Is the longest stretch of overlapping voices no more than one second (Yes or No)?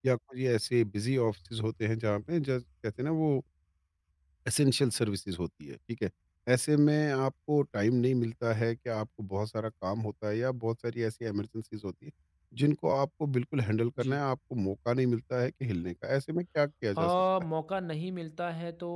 Yes